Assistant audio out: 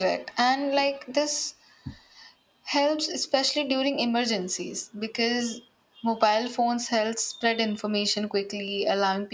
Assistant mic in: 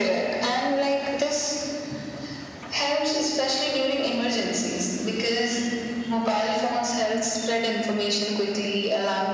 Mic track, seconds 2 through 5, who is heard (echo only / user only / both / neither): echo only